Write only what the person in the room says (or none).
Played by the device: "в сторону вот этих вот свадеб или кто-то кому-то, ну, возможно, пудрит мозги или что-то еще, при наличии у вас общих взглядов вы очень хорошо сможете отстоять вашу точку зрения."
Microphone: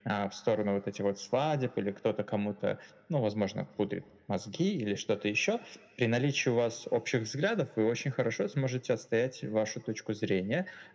none